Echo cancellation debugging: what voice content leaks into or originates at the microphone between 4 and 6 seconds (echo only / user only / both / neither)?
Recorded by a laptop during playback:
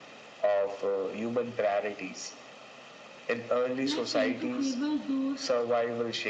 both